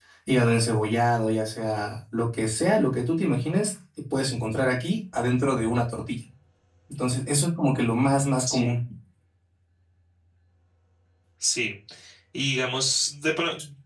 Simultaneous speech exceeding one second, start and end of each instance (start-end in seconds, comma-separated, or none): none